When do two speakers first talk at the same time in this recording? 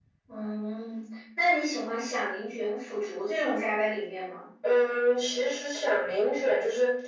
none

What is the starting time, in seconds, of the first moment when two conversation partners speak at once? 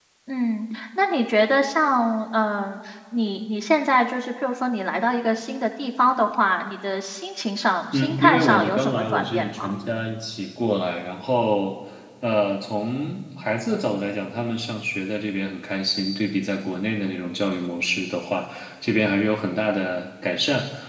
7.9 s

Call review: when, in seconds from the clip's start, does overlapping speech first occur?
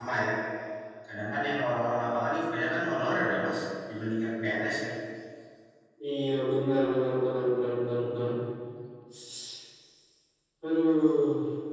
none

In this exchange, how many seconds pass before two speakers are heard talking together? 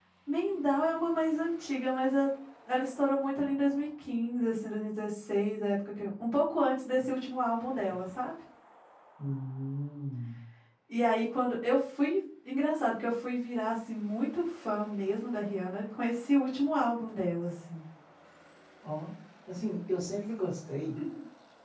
none

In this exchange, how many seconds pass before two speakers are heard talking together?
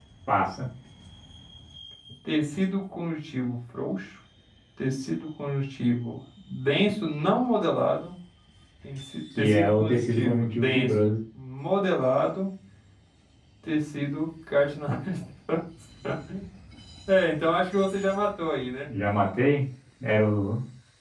9.4 s

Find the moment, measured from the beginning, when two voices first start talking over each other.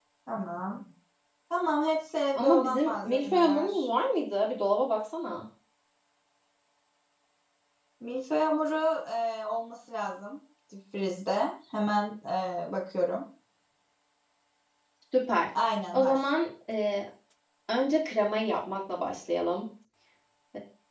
2.4 s

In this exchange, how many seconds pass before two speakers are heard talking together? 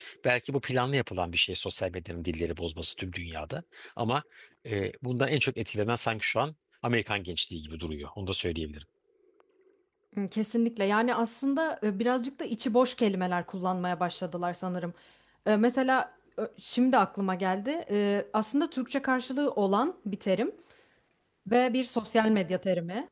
none

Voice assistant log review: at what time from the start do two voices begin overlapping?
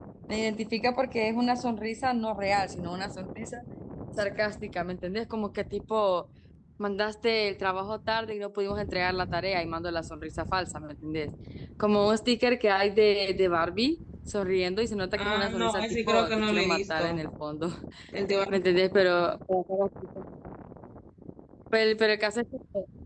15.2 s

